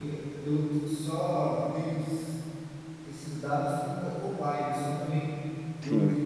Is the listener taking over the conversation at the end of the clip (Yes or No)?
No